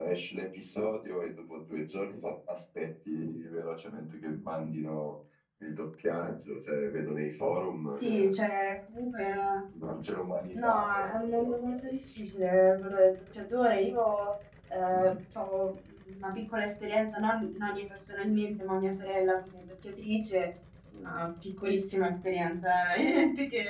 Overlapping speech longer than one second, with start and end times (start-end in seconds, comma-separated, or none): 10.6-12.2